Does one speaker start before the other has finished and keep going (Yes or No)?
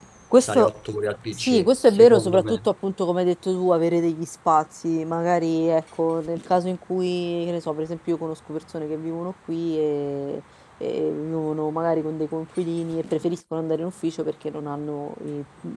Yes